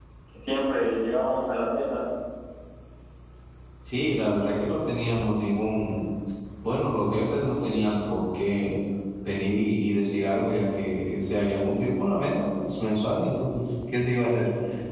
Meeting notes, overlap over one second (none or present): none